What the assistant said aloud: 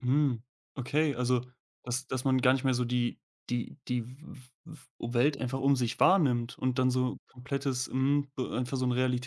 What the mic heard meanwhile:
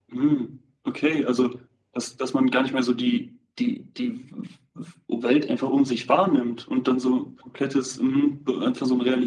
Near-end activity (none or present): none